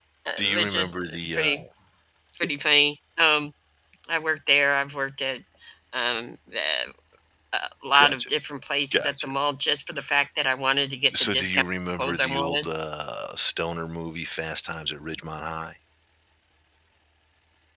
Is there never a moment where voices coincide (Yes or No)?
No